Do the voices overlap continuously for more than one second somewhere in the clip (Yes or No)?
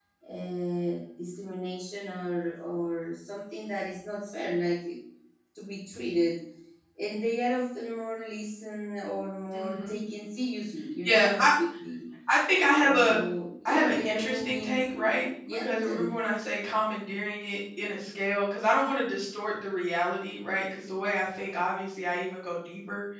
Yes